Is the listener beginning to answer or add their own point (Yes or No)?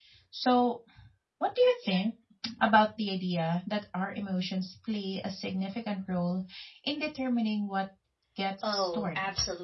Yes